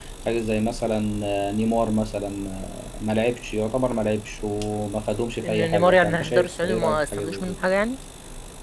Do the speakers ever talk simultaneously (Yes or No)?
Yes